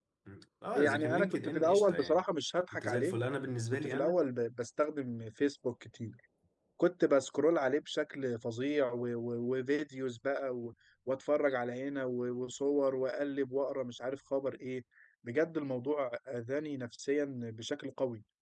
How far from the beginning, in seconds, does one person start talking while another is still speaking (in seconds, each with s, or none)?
0.8 s